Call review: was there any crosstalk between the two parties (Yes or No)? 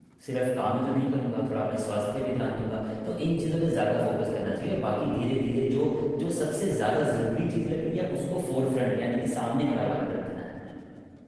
No